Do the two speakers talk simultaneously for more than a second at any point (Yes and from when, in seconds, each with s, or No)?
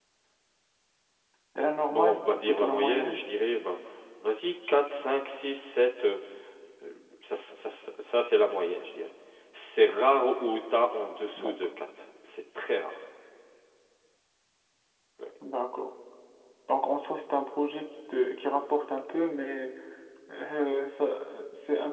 Yes, from 1.9 s